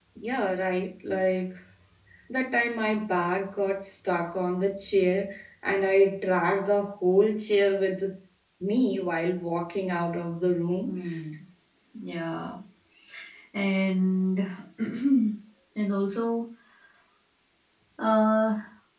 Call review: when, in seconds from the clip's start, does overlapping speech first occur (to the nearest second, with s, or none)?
none